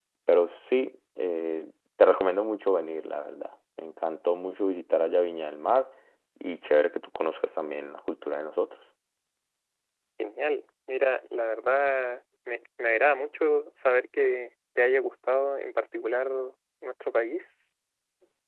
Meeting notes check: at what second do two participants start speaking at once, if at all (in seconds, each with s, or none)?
none